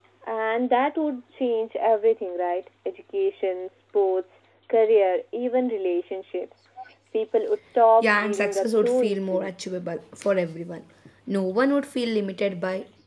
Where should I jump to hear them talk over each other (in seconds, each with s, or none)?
8.0 s